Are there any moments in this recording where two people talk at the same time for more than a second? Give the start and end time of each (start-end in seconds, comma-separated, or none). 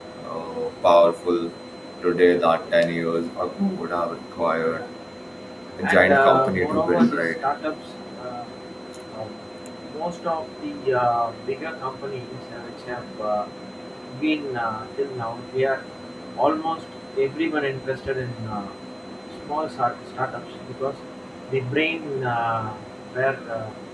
5.8-7.4